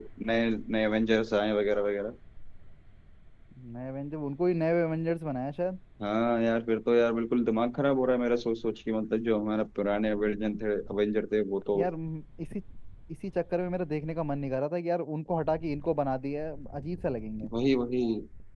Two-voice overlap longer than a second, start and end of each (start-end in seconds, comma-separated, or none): none